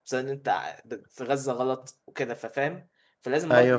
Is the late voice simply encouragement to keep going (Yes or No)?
Yes